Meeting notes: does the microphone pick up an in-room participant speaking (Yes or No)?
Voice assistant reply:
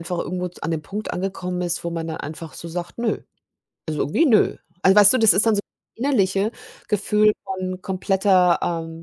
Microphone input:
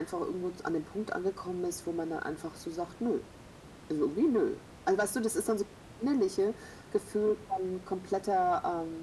No